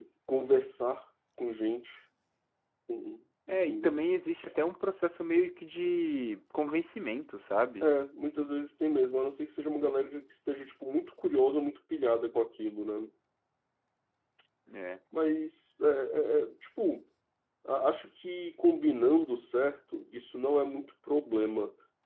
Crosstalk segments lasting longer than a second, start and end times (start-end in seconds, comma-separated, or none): none